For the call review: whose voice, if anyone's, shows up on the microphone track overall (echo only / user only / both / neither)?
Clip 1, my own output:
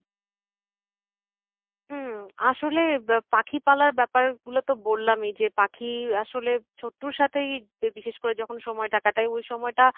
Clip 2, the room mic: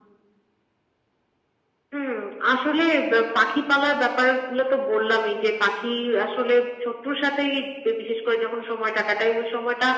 echo only